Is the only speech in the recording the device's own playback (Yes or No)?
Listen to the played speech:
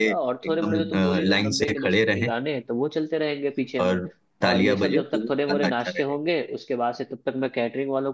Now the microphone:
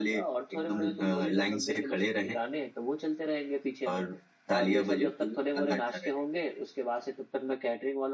Yes